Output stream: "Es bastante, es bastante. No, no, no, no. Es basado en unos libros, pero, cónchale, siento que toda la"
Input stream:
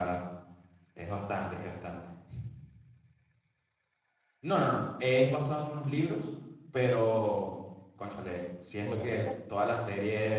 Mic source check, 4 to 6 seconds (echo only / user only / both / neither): echo only